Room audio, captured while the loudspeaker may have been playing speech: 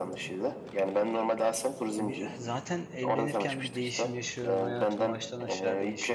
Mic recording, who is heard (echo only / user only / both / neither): both